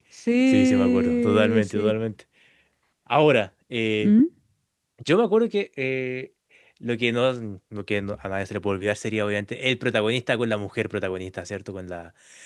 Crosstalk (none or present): present